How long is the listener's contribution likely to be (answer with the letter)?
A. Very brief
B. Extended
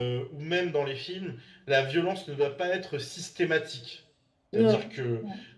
A